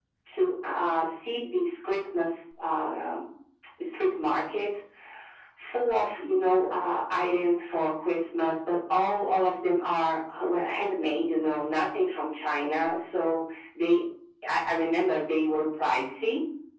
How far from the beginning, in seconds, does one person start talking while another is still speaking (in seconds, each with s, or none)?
none